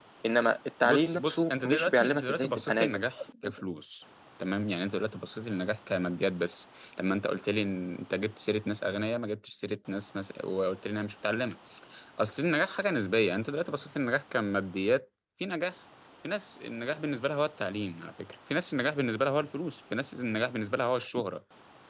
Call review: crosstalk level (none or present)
present